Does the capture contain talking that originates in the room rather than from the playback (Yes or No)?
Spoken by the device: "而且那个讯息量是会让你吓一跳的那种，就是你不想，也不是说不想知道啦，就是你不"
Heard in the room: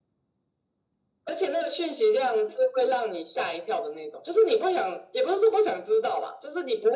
No